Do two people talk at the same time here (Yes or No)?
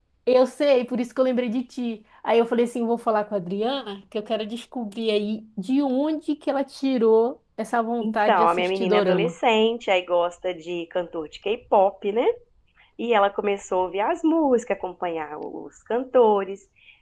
Yes